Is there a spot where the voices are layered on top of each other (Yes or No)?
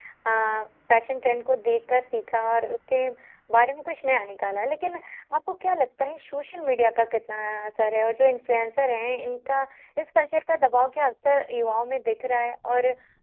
No